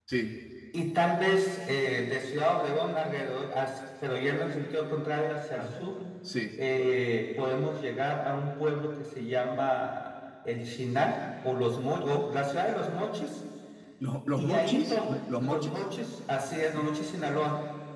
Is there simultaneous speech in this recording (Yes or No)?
Yes